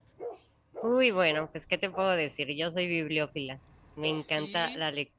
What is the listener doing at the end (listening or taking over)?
listening